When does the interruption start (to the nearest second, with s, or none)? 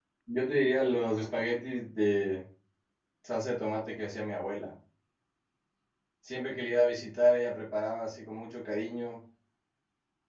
none